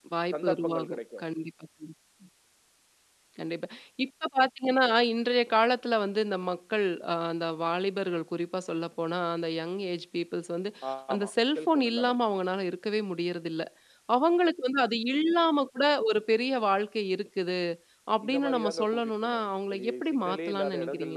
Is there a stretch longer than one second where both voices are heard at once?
Yes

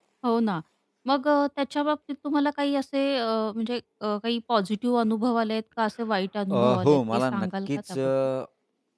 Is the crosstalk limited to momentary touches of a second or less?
No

